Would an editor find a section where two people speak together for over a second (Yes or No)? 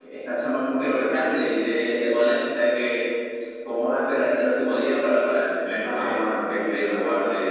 Yes